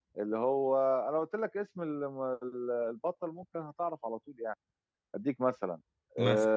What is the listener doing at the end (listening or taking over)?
listening